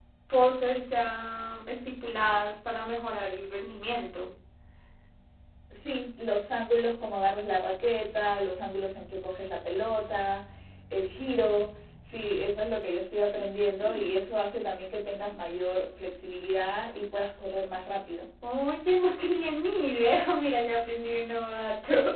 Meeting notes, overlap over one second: none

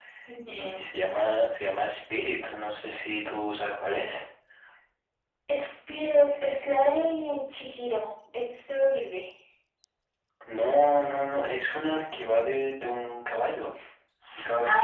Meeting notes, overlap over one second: none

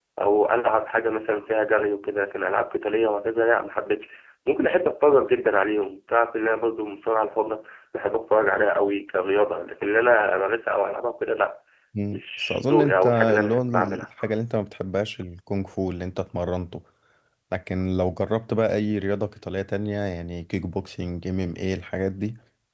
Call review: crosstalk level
present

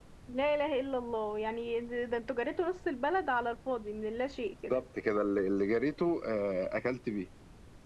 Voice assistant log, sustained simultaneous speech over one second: none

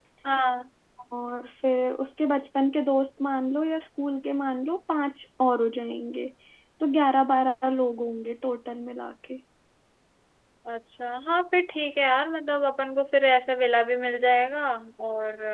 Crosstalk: none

